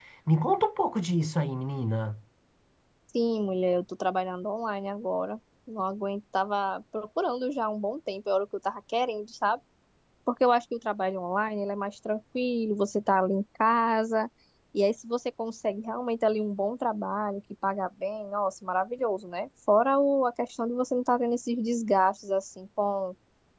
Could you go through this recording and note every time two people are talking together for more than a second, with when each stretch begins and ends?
none

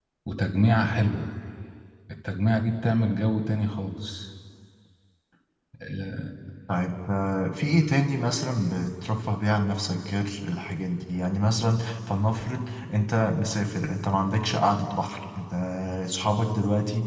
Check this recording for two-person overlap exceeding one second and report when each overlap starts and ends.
none

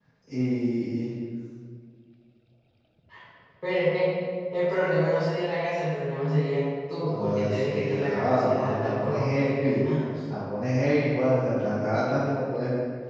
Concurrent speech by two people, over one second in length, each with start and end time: 7.1-9.8

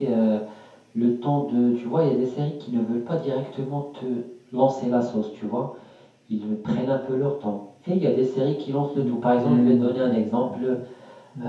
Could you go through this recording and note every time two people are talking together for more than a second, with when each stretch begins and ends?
8.9-10.8

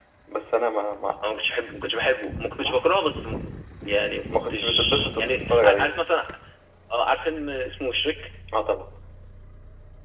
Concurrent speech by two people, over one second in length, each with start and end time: 4.5-5.9

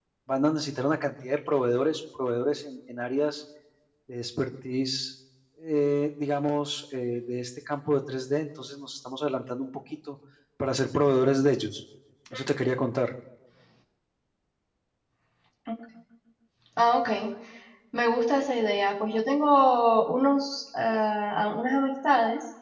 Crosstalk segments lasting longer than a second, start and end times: none

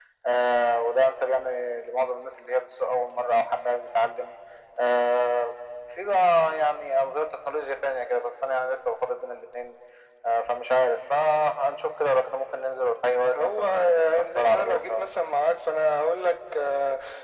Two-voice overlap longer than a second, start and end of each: 13.3-15.1

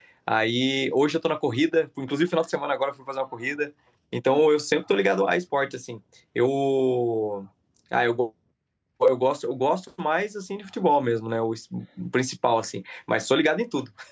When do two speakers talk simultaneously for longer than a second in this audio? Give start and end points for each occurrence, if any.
none

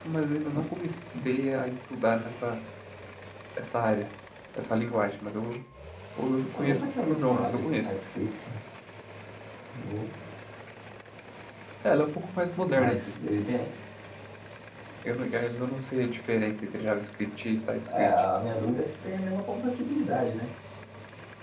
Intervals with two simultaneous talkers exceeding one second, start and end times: 6.5-7.9

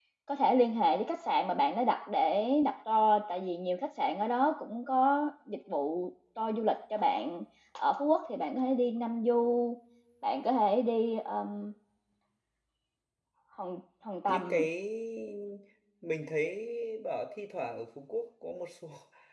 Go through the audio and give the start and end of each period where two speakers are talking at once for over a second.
none

